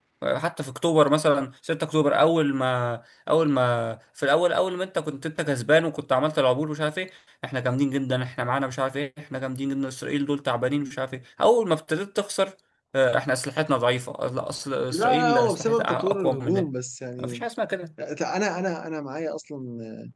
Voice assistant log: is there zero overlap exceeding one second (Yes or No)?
No